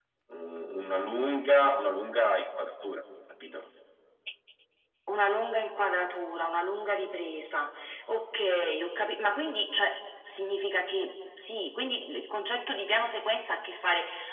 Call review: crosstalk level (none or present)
none